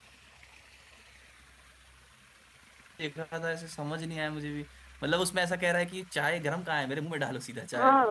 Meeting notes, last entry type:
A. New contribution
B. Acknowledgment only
A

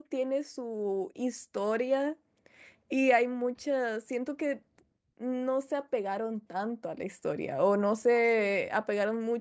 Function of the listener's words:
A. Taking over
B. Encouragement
B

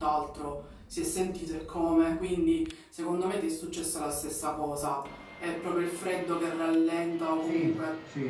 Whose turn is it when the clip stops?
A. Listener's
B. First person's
B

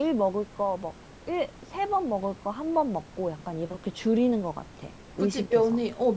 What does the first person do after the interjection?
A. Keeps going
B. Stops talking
B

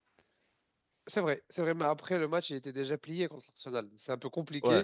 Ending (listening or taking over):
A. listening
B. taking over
A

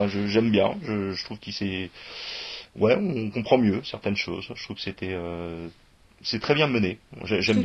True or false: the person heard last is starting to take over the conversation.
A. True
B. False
A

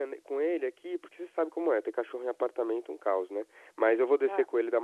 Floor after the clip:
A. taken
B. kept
B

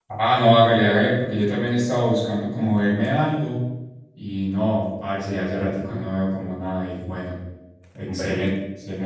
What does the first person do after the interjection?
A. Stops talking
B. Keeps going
B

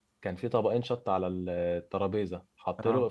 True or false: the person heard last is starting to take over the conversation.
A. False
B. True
A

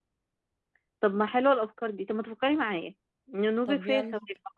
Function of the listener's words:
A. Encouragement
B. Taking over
A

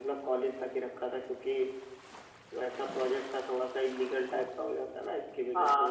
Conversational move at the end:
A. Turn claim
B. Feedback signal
A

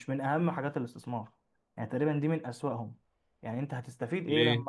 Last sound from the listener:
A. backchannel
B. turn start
A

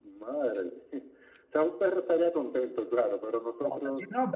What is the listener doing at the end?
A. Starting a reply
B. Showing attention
A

